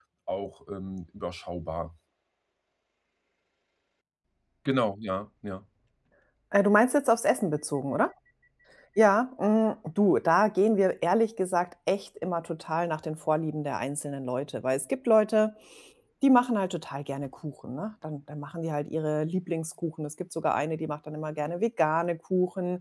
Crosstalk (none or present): none